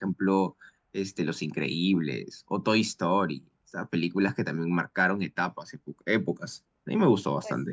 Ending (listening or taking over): taking over